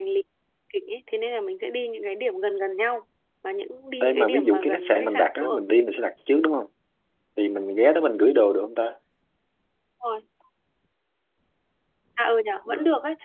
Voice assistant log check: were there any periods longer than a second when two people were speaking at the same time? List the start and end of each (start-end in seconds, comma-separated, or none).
4.0-5.6